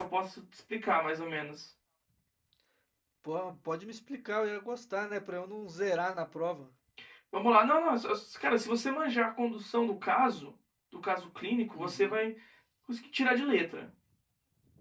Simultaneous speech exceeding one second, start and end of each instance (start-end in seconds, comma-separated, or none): none